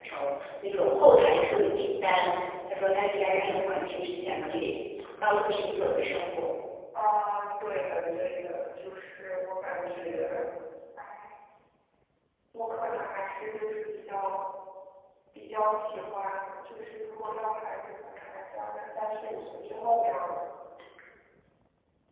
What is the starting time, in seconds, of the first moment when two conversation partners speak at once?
none

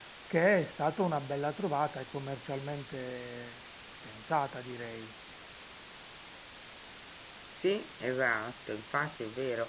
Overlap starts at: none

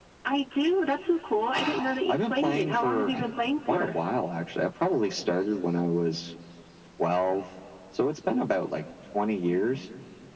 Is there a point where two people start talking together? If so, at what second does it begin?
1.5 s

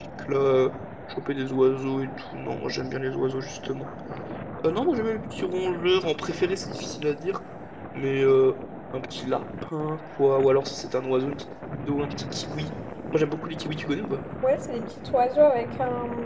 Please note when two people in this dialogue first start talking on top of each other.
none

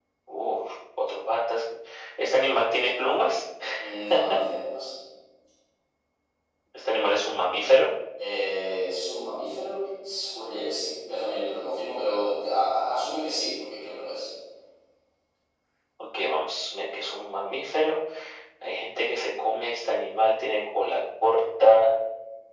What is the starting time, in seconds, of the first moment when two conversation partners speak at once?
none

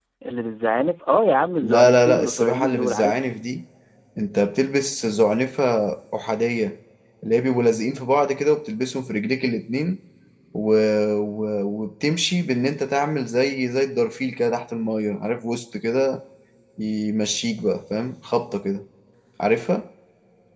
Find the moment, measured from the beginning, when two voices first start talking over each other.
1.6 s

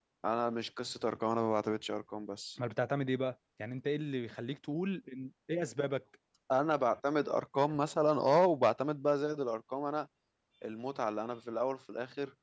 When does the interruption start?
none

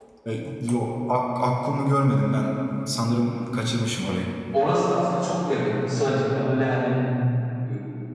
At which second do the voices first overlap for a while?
none

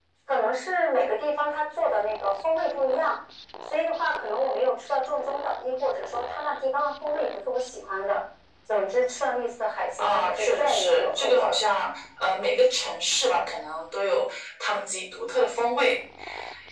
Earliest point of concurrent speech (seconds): 10.0 s

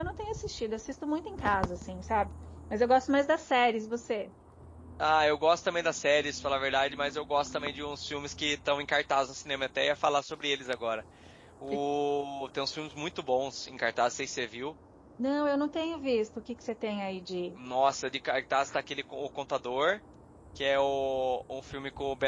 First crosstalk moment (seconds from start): none

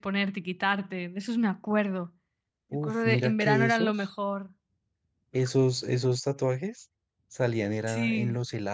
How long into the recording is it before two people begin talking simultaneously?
2.8 s

